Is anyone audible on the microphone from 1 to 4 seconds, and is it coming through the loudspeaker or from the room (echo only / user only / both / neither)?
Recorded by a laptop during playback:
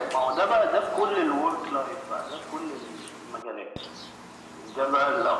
echo only